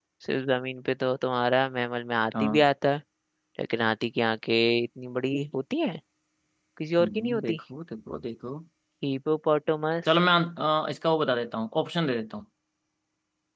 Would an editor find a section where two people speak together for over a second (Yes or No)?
No